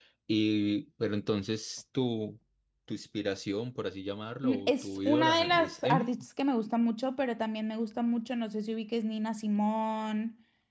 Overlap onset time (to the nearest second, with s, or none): 4 s